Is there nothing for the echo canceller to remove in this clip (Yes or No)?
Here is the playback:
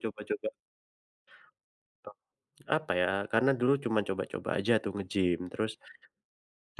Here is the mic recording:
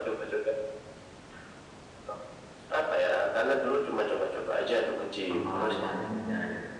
No